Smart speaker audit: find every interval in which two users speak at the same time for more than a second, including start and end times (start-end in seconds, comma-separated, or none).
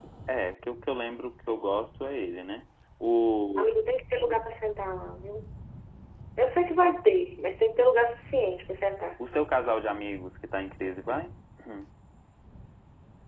none